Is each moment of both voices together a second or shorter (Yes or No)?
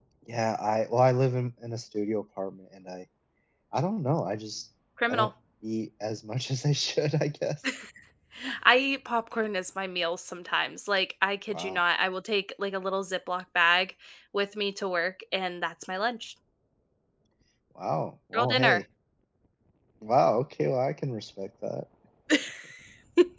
Yes